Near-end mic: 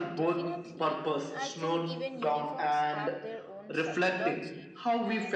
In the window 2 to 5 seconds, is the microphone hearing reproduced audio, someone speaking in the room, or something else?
both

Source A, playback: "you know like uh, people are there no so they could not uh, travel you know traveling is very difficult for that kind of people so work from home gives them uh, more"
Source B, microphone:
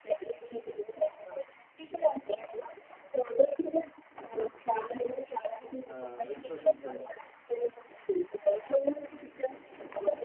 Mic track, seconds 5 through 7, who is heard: both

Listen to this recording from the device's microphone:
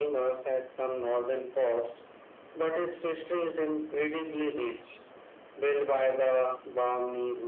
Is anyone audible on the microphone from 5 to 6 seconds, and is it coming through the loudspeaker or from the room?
echo only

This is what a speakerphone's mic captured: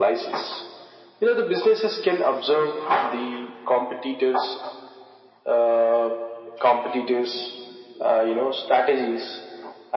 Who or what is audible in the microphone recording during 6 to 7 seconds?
echo only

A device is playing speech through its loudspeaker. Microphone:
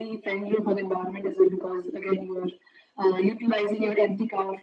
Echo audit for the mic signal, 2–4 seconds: echo only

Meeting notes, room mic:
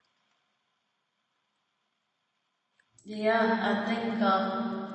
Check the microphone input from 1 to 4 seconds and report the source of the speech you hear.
user only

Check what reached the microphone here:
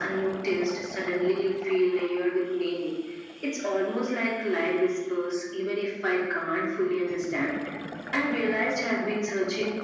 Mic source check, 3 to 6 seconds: echo only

